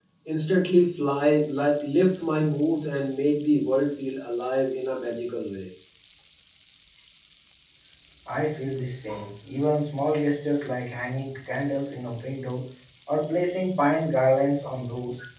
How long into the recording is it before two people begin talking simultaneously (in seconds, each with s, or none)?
none